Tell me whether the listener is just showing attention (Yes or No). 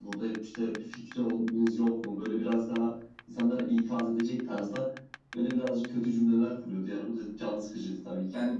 No